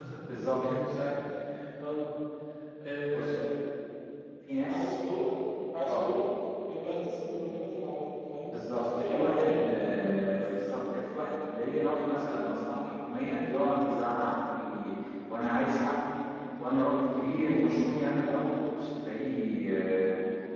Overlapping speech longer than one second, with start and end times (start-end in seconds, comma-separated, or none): 8.5-10.0